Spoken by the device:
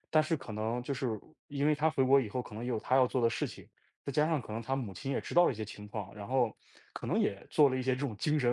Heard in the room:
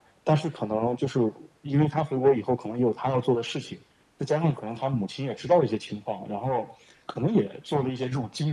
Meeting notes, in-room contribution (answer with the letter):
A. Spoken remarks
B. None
B